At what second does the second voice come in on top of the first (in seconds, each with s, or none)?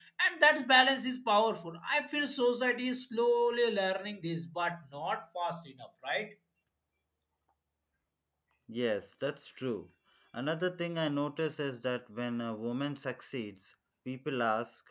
none